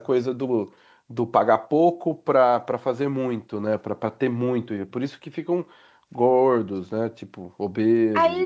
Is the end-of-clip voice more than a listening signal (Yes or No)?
Yes